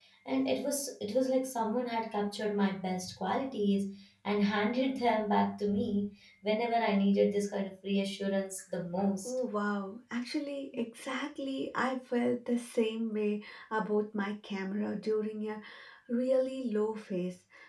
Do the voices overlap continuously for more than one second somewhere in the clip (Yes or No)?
No